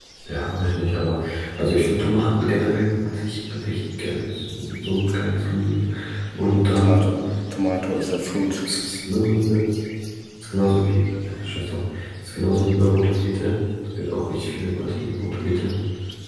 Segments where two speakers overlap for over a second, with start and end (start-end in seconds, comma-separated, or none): none